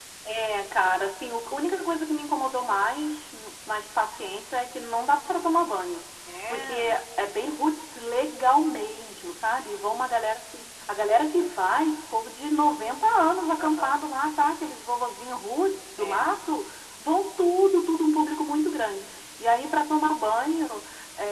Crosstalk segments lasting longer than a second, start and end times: none

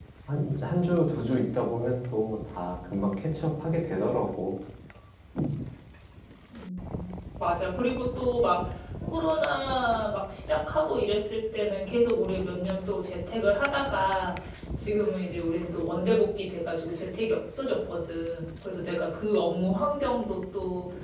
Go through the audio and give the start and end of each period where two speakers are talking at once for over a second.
none

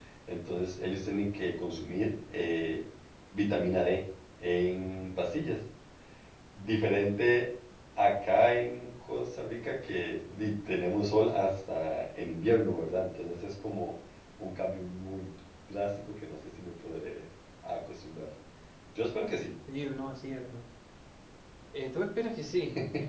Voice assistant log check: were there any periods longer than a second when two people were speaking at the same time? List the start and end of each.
none

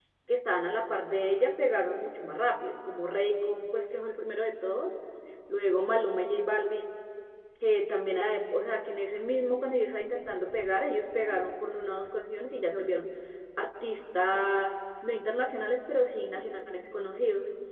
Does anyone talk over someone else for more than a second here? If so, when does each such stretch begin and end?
none

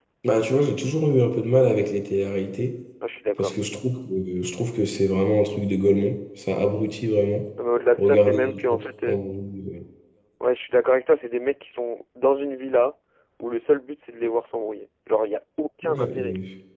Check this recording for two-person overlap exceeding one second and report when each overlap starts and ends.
8.0-9.2

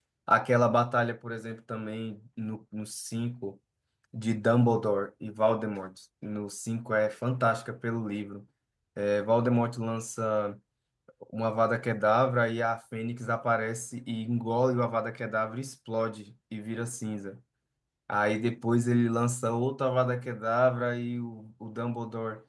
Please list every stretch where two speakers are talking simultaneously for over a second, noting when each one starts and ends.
none

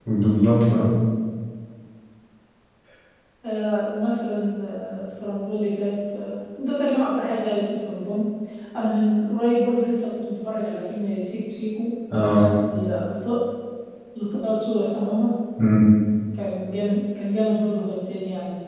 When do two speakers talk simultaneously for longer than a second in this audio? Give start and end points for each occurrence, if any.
none

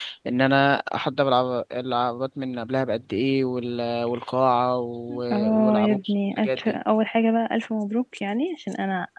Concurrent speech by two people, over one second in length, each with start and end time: 5.3-6.8

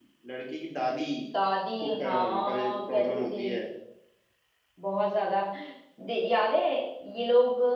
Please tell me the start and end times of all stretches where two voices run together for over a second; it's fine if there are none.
1.8-3.5

